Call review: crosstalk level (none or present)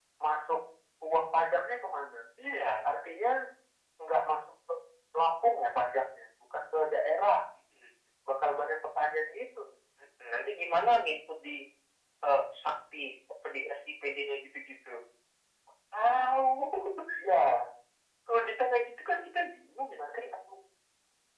none